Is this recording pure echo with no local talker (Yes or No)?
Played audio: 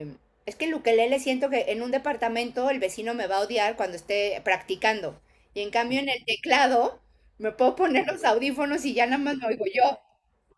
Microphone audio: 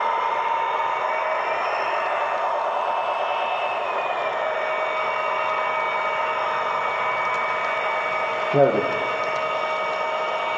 No